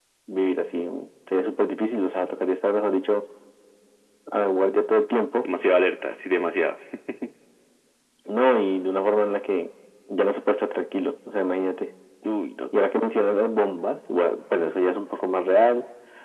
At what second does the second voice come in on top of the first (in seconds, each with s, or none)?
none